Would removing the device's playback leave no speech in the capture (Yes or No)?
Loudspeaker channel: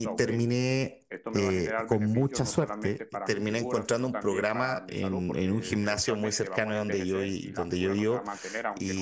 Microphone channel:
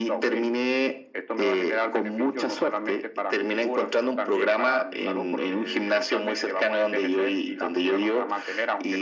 Yes